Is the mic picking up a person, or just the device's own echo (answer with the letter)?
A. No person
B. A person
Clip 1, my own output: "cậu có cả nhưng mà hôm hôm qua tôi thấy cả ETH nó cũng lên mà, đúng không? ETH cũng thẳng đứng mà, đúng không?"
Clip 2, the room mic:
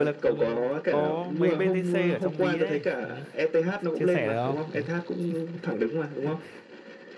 B